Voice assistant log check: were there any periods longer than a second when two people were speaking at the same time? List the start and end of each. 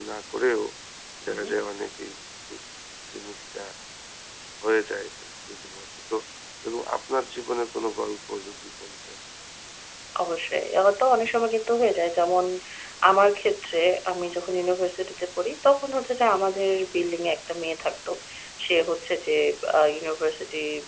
none

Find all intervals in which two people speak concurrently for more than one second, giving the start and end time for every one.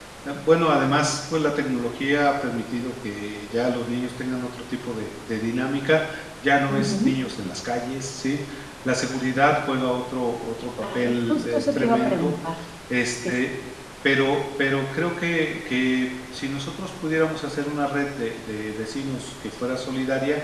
11.0-12.3

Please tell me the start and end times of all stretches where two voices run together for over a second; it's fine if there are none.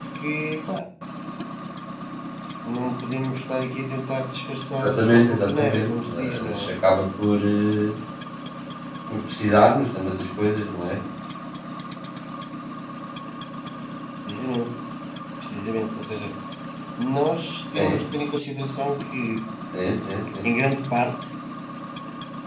4.8-6.7

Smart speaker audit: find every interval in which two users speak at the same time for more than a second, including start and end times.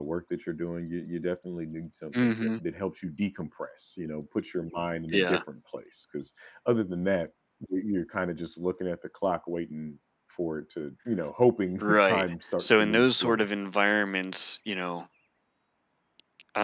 11.8-13.4

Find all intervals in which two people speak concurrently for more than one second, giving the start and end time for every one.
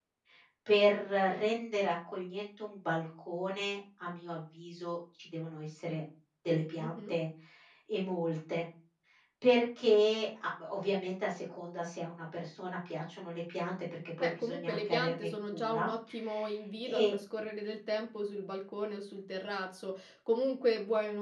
14.2-15.9

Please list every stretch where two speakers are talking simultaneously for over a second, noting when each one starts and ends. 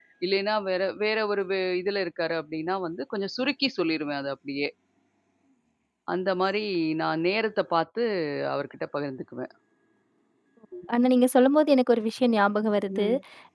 none

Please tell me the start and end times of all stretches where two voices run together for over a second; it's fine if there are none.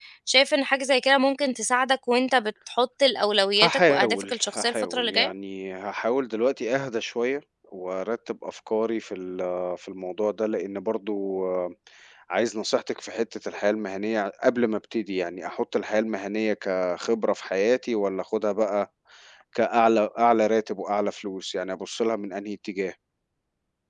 3.6-5.3

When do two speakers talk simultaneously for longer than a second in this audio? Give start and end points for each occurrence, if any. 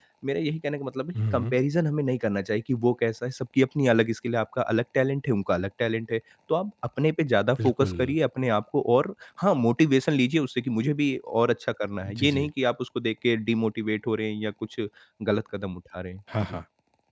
none

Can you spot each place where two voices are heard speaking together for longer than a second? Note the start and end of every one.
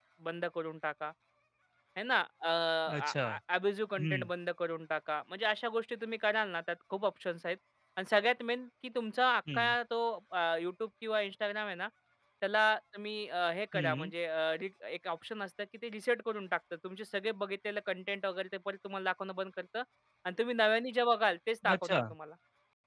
none

